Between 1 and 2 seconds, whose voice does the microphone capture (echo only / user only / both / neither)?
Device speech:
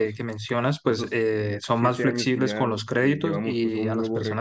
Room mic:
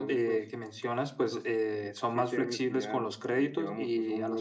echo only